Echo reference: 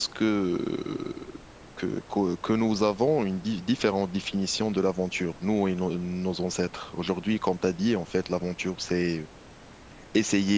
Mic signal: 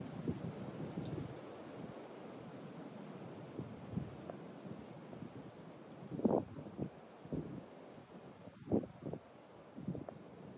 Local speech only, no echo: none

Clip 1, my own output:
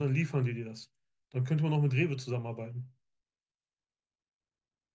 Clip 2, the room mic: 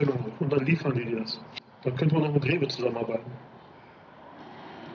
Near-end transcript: none

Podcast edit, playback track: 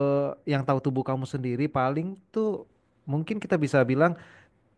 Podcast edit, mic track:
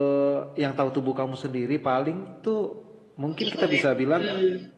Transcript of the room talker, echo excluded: gitu ya. Hmm.

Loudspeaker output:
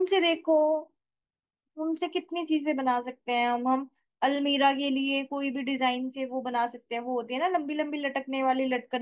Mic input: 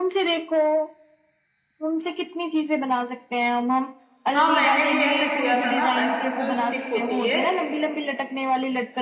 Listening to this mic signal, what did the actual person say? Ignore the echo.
हाँ मैंने भी ऐसे किया था ना आइसक्रीम जो स्टिक होती है

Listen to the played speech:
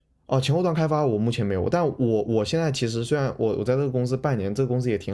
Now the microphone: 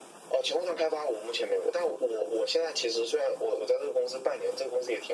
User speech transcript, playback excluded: none

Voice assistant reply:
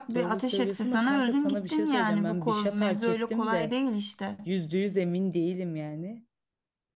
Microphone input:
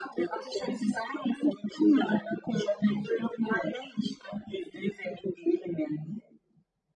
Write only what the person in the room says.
none

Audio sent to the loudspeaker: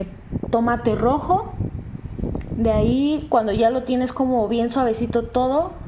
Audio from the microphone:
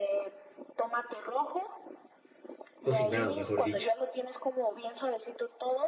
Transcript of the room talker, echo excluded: cocinado, mejor dicho,

